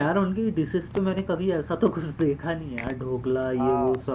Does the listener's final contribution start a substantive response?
Yes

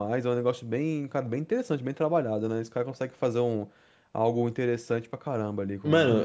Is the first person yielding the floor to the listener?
Yes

